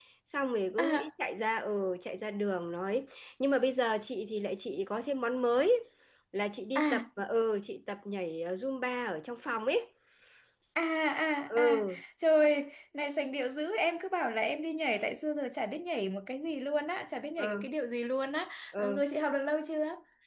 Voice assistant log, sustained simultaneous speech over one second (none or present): none